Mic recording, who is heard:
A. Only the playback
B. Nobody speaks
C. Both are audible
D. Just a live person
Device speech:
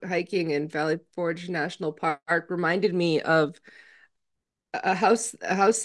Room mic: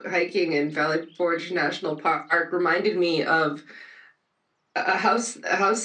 A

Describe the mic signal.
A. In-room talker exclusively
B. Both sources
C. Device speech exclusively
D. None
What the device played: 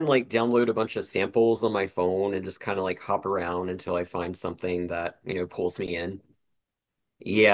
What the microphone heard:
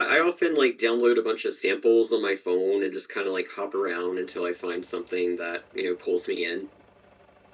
C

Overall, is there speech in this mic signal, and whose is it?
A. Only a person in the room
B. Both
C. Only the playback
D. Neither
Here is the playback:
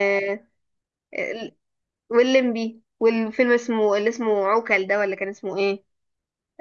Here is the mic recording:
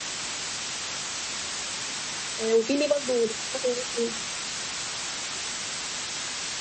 A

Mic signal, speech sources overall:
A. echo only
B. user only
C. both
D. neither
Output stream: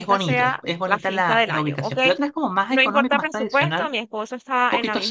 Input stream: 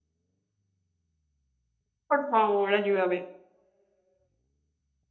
B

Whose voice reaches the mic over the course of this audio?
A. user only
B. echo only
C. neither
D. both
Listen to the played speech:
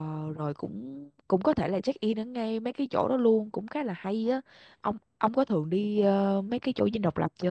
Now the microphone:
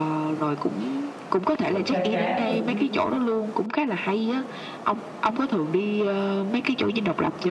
D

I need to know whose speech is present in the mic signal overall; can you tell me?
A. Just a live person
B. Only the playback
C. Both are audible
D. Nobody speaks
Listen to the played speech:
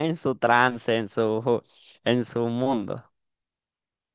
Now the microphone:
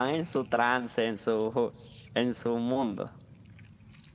B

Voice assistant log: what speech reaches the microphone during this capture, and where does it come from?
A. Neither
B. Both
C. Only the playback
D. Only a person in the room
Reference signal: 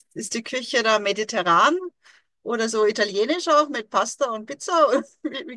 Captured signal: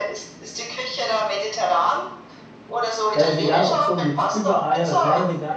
B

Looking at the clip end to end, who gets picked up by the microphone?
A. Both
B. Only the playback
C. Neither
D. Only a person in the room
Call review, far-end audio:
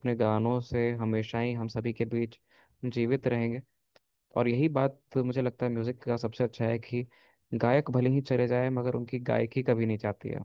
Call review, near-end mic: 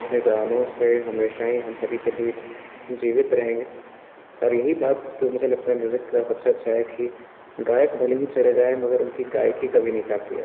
B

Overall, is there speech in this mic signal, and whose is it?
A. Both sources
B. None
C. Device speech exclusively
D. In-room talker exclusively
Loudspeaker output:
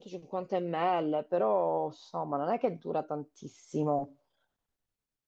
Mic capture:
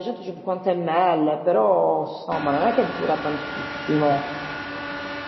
C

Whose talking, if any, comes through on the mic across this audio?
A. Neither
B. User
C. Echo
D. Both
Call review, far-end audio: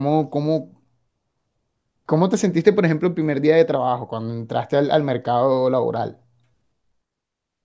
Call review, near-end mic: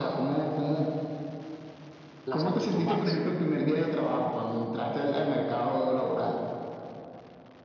D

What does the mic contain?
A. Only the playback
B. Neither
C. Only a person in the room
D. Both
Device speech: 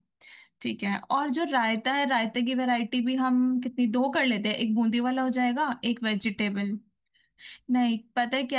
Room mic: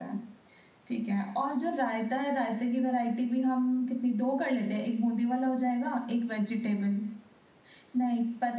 A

